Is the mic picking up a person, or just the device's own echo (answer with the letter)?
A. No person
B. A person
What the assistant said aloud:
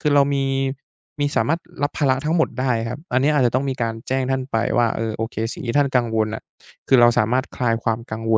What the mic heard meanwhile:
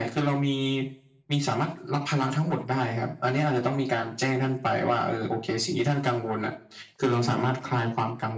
A